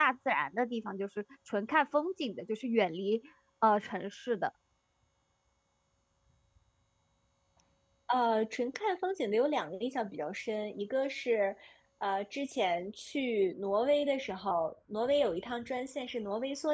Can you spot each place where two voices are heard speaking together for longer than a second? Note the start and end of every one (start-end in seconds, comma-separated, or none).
none